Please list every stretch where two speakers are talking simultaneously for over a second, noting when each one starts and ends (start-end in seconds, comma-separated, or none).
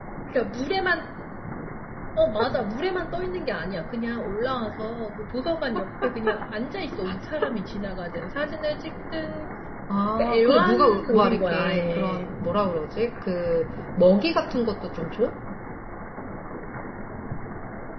10.2-12.3